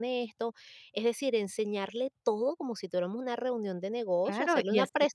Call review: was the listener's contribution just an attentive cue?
No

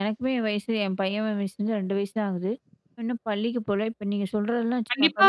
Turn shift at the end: Yes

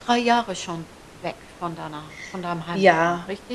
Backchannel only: No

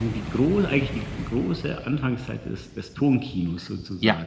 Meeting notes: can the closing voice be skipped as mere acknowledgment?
No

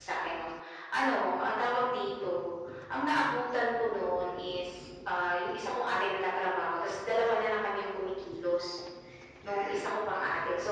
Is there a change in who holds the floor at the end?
No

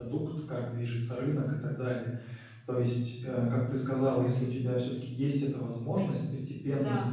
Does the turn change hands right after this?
No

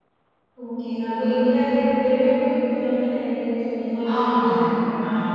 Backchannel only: No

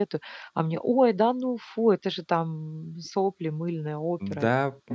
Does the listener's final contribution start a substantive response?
Yes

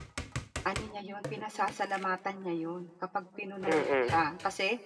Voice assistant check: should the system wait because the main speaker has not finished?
Yes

